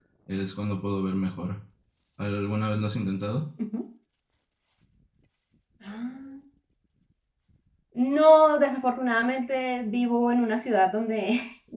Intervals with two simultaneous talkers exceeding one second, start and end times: none

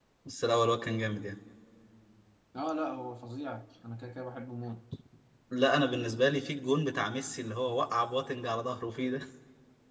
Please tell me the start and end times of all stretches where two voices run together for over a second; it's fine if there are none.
none

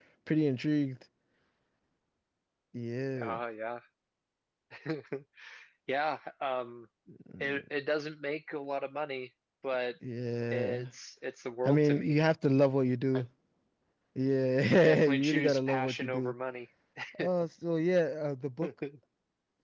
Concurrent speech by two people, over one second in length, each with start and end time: 14.8-16.3

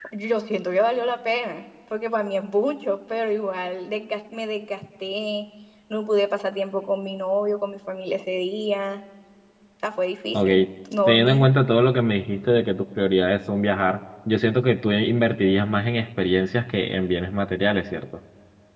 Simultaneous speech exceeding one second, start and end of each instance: none

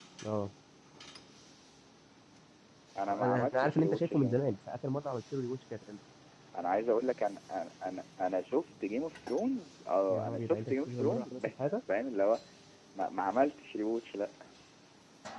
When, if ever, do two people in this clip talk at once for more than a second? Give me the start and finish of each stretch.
3.1-4.6, 10.1-11.7

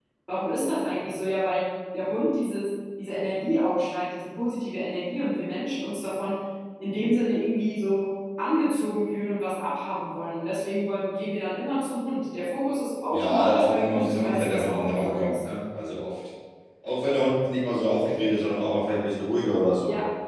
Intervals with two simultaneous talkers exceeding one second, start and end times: 13.1-15.3

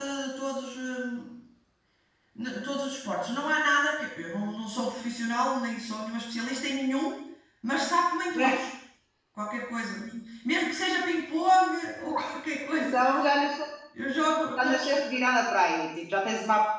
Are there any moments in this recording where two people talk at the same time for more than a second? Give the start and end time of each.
none

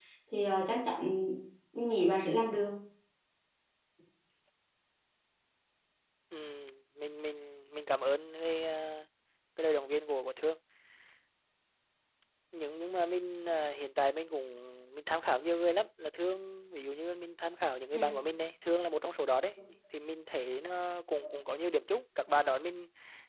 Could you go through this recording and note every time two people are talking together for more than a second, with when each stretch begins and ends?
none

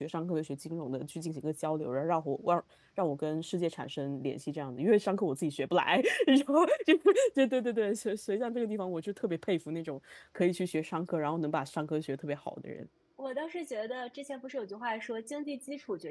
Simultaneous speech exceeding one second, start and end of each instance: none

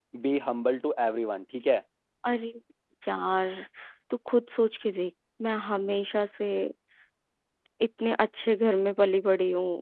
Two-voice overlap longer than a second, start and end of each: none

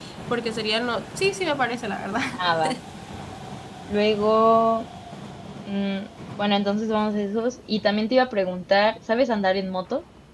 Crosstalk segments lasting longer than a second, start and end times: none

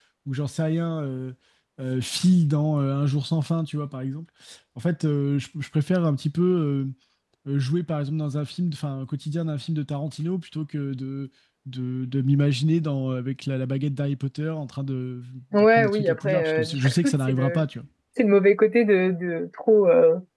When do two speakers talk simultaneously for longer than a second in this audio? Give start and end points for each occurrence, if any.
15.5-17.6

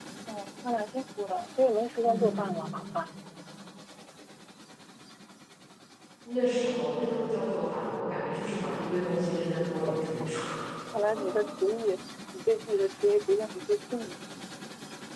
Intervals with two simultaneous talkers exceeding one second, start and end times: none

